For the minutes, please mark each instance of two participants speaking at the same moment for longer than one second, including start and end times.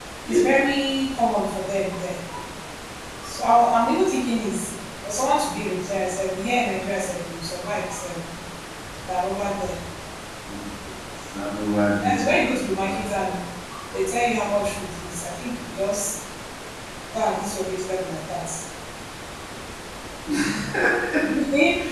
12.0-13.4

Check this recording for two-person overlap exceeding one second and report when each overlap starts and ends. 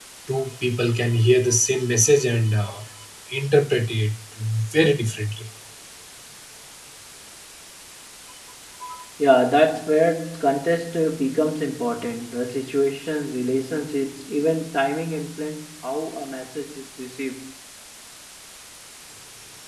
none

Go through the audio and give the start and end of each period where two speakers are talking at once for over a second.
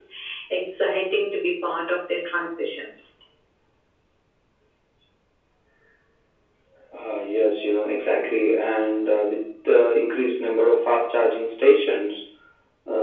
none

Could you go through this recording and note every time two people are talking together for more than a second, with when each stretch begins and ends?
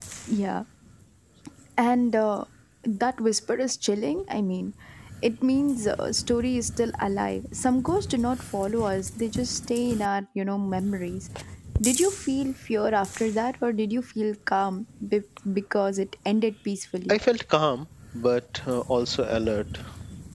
none

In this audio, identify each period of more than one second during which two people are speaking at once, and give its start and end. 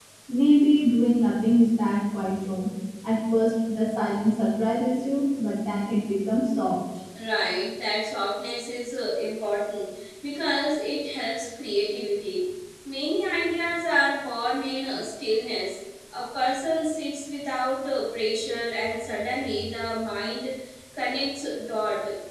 none

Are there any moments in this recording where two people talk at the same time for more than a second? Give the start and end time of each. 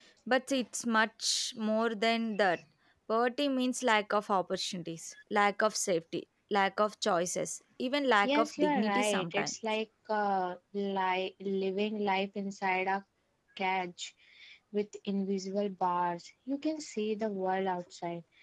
8.2-9.5

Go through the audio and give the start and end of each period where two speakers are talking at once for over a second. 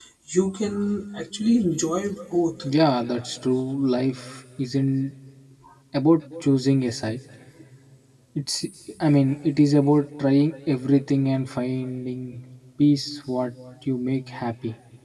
none

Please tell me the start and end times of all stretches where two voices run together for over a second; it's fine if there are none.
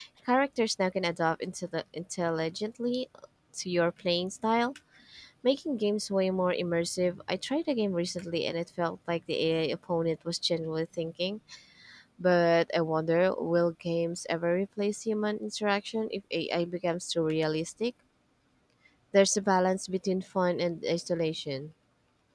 none

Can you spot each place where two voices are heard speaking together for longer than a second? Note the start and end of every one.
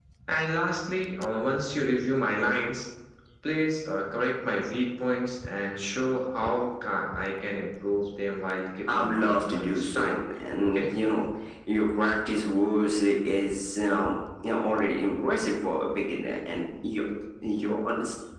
8.9-10.2

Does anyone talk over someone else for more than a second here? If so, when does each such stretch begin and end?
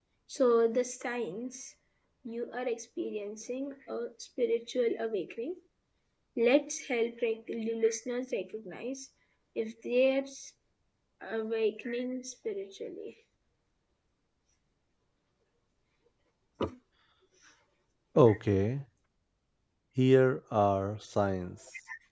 none

